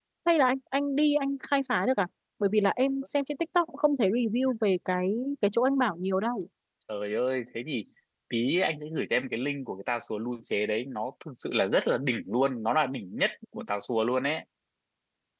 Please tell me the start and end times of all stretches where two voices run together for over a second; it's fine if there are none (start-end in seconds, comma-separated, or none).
none